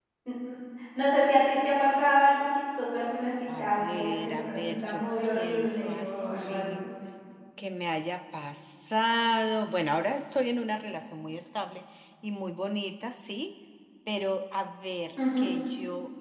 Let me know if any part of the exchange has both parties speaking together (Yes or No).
Yes